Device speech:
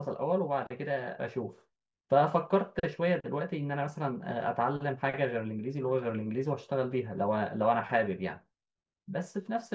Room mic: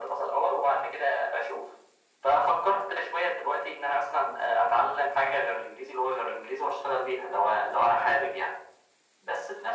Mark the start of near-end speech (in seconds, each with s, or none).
none